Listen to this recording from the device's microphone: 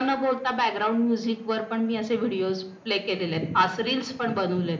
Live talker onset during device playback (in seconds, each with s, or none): none